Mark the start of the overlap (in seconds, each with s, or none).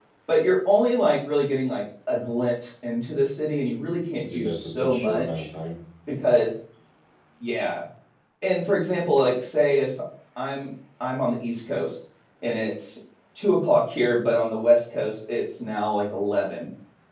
4.2 s